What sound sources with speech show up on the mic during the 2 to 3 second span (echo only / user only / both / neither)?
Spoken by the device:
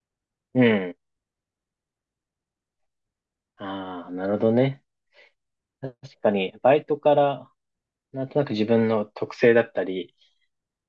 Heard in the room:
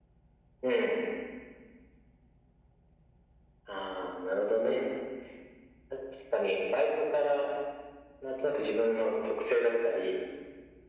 neither